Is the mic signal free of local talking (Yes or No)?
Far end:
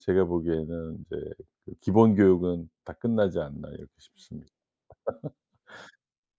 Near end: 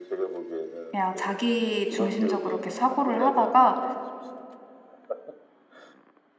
No